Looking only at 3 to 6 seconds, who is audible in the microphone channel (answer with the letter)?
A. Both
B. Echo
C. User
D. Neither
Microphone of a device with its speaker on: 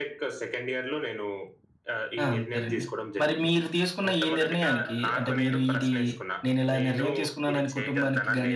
A